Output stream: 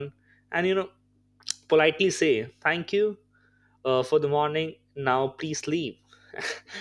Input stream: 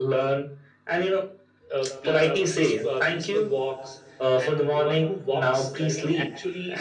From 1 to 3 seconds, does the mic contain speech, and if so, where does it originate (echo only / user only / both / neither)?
both